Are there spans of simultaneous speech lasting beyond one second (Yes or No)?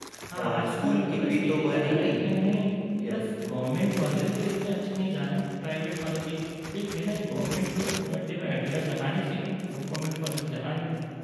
Yes